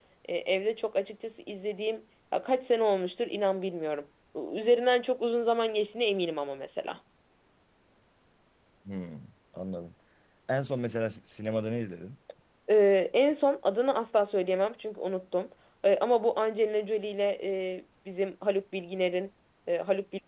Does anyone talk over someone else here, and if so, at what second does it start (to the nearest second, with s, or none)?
none